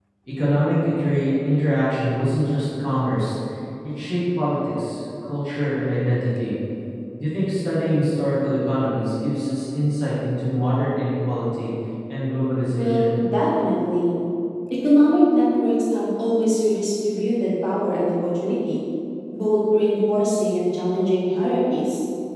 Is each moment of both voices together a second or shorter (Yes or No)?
Yes